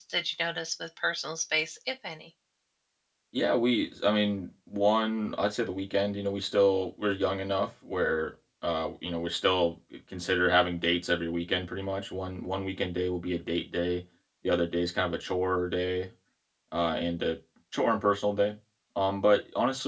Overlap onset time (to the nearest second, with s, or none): none